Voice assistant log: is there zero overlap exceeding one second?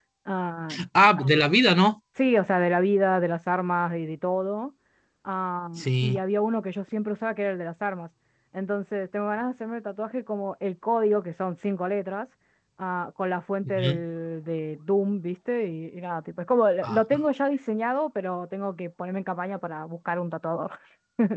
Yes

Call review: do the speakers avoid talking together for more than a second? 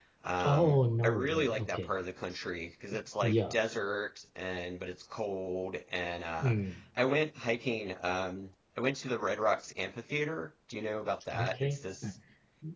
No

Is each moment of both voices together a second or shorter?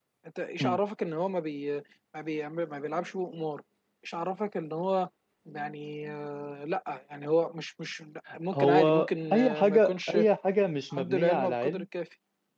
No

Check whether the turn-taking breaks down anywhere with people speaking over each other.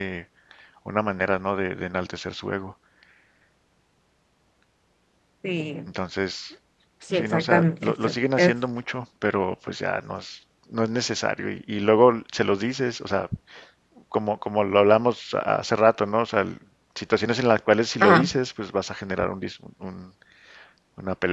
Yes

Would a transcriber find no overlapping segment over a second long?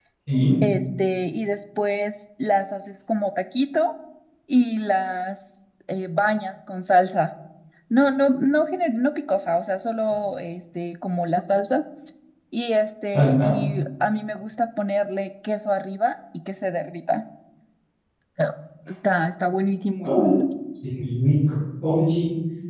Yes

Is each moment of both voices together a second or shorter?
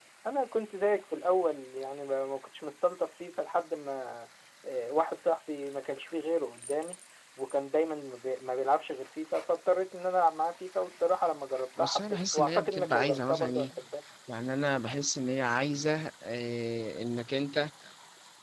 No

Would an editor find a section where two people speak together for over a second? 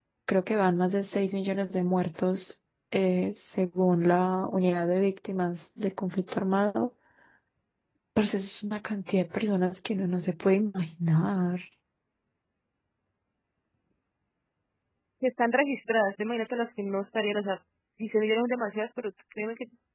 No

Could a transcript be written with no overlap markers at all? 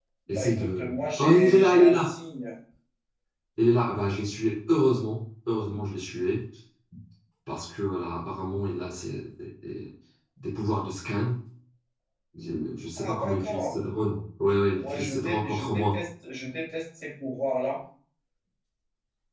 No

